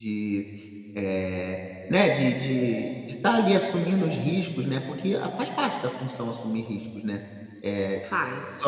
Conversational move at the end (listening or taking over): listening